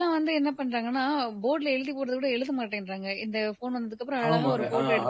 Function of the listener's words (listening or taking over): taking over